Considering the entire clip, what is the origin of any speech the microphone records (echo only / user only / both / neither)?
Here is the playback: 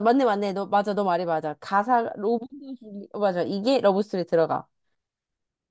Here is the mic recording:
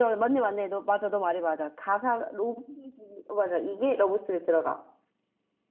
echo only